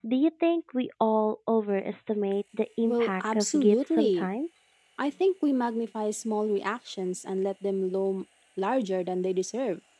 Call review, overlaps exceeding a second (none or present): present